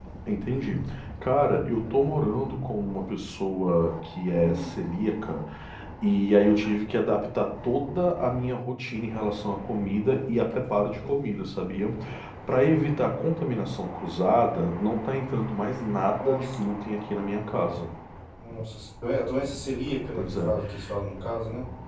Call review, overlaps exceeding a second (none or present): none